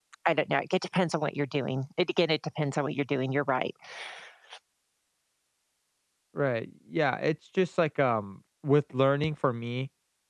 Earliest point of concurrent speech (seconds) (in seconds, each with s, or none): none